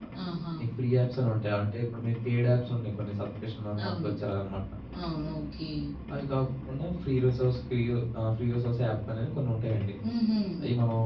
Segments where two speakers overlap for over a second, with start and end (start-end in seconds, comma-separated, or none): none